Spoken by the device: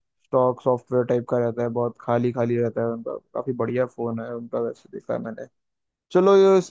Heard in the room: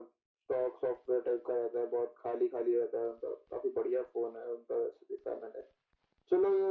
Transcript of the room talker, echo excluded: none

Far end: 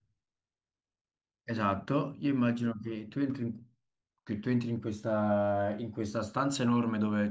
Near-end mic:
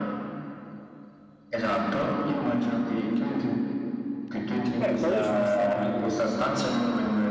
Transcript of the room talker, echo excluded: beh, quello ci può stare.

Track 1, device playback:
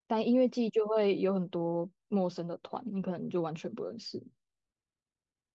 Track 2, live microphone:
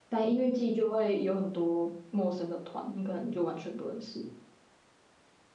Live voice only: none

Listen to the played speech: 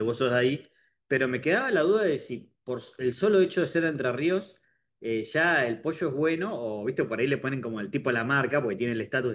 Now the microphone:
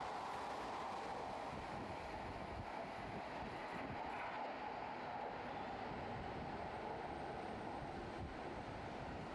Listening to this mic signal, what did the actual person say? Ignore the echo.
none

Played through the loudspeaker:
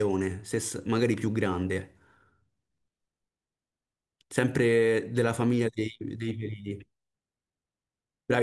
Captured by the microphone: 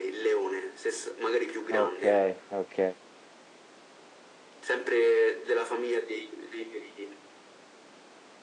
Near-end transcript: Ok, ok.

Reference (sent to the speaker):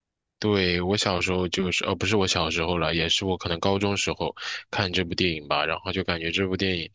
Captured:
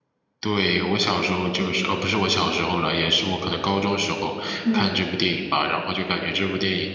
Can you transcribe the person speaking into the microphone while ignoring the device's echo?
嗯，

